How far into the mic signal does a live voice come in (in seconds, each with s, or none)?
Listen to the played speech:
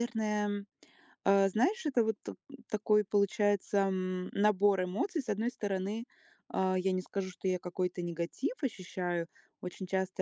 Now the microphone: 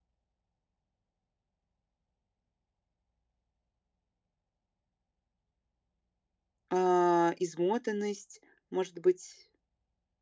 6.7 s